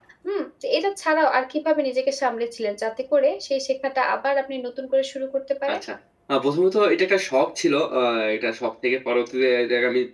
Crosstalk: none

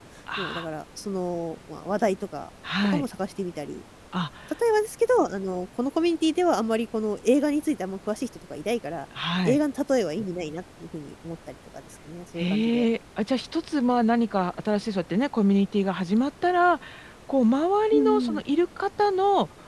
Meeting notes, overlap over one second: none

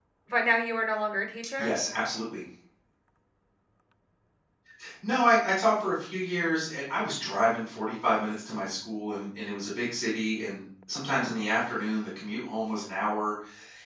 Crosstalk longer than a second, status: none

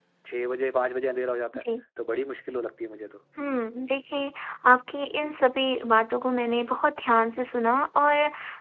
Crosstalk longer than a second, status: none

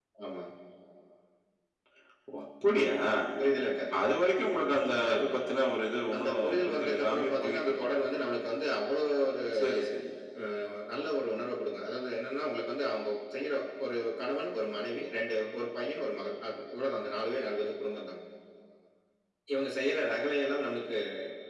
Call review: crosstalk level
present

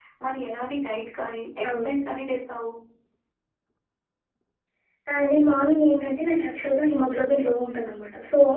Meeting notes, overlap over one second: none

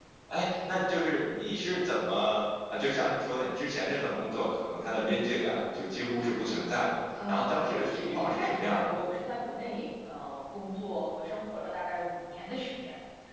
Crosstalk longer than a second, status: present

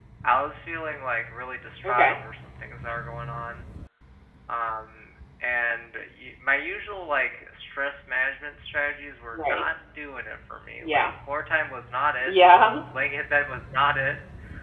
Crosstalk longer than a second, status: none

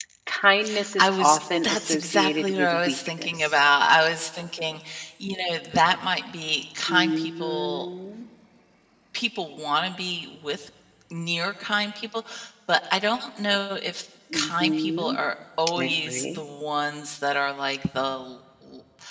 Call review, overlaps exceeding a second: present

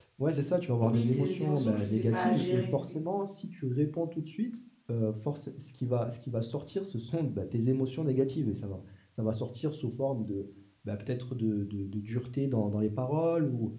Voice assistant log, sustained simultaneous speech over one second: present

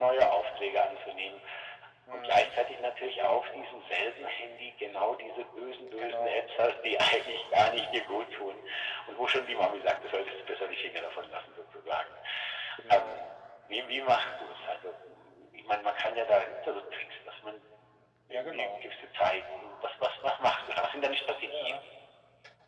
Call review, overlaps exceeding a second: none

